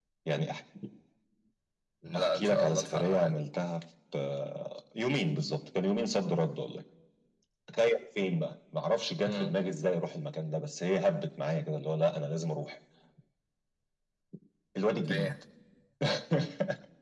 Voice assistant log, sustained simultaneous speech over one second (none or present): present